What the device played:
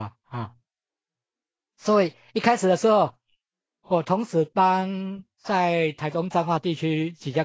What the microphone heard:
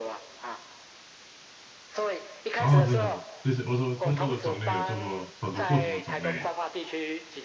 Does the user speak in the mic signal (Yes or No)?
Yes